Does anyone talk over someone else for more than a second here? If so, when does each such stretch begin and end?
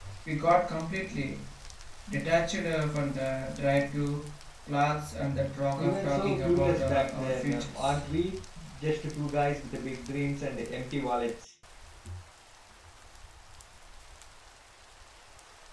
5.8-8.0

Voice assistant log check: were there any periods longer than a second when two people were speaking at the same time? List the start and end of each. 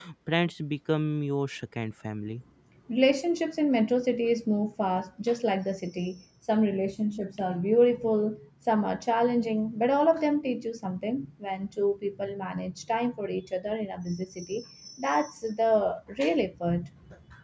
none

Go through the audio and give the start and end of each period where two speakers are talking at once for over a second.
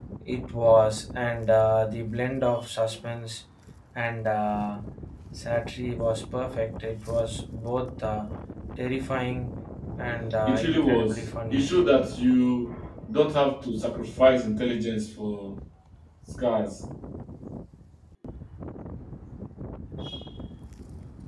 10.5-11.7

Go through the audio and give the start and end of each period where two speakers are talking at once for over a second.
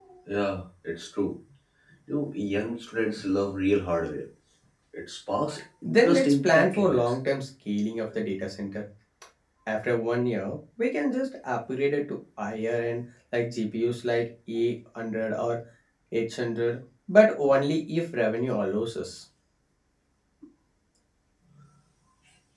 5.9-7.2

